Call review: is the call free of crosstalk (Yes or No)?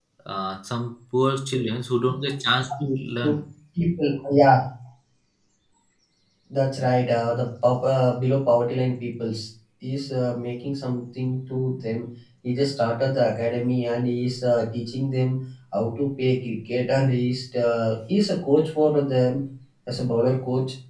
Yes